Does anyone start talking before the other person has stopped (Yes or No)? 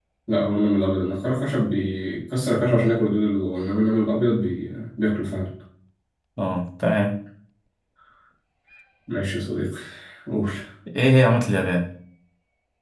No